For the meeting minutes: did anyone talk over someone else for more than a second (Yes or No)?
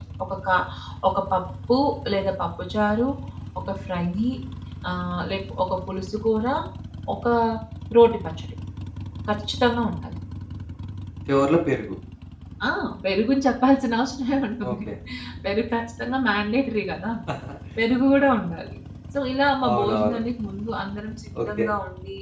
No